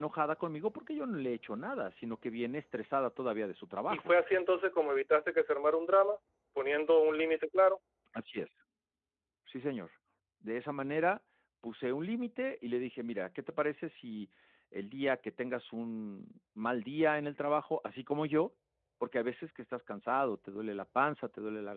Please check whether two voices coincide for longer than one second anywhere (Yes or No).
No